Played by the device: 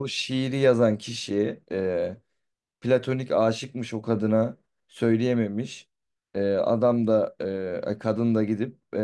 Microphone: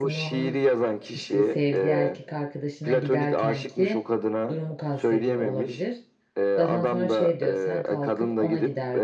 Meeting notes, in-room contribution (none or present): present